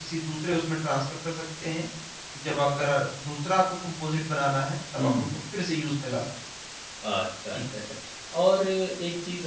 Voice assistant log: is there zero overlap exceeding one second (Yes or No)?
Yes